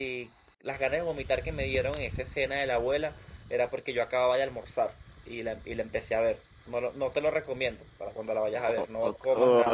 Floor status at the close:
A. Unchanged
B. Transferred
B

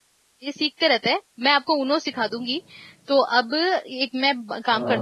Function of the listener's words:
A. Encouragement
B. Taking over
A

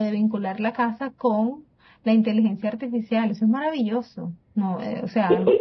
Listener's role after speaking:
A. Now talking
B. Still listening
A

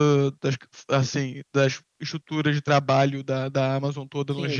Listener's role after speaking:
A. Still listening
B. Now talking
B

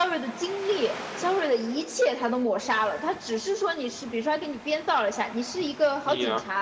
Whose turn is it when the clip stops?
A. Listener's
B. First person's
B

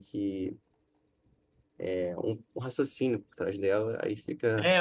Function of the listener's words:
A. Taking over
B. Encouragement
A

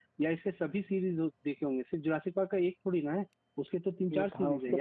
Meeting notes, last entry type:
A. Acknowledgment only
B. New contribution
B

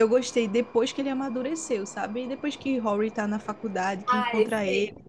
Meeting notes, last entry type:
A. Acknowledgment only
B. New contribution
B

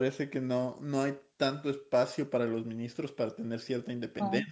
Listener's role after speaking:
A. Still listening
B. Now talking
A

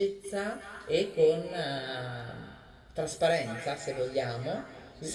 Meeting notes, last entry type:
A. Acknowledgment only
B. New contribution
A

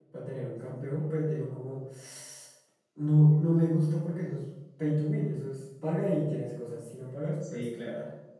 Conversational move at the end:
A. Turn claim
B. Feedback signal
A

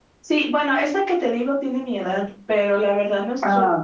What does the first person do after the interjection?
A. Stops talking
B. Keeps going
B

